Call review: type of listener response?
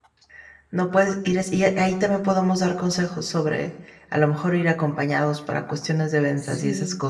listening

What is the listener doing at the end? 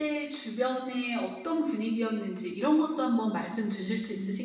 taking over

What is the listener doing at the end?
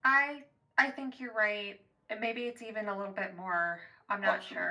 taking over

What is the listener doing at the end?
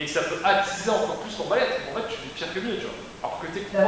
listening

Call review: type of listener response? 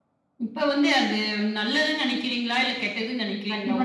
taking over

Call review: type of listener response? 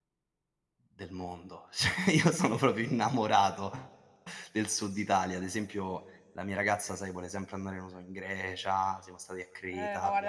taking over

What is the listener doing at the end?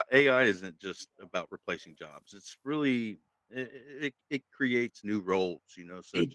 taking over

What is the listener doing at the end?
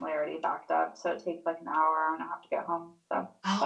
taking over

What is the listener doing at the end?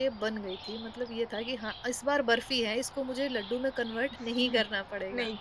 taking over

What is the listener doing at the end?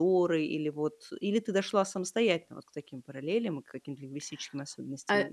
taking over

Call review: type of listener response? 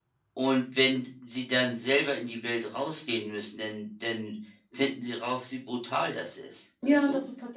taking over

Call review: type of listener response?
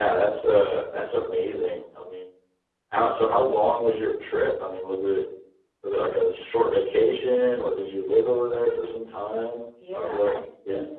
taking over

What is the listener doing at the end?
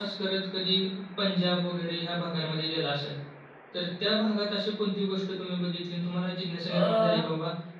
listening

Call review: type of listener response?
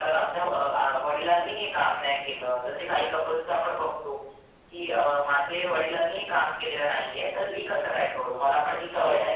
listening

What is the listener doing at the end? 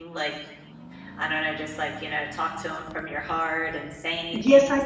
taking over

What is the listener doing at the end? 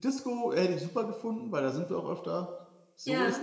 taking over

